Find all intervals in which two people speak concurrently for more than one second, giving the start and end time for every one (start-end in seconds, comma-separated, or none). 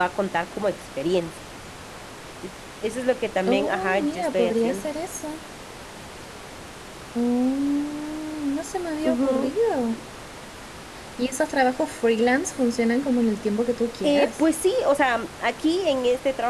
3.5-4.9